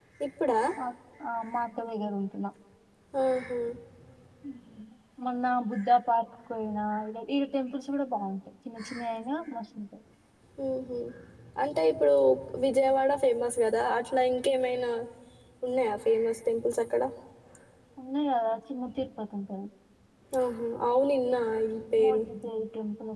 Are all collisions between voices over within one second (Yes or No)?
Yes